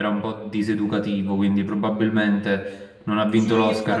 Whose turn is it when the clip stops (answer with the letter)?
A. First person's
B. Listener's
B